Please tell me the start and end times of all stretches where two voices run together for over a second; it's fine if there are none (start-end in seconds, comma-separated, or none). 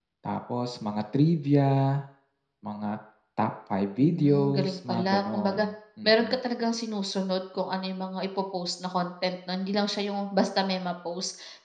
4.0-5.6